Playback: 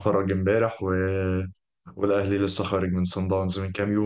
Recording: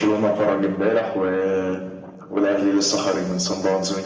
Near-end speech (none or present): none